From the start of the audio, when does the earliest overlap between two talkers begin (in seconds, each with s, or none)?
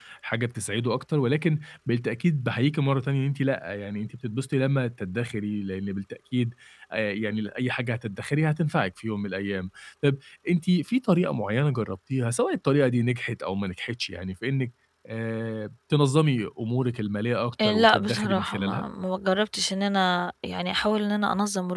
17.6 s